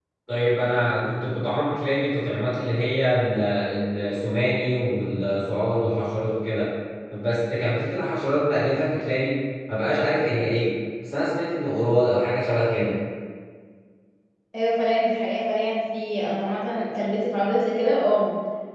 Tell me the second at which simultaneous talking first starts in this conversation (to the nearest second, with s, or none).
none